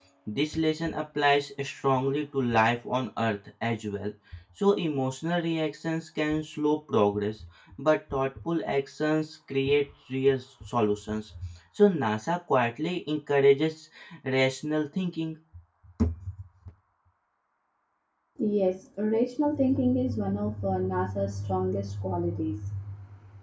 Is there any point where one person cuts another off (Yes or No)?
No